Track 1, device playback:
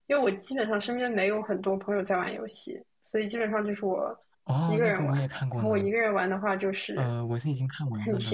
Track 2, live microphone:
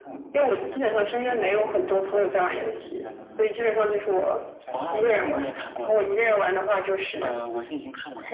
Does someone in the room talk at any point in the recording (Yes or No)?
Yes